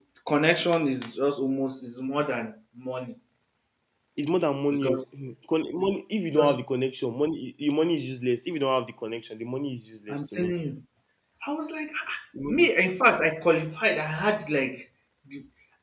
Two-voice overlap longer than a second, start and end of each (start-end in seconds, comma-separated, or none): none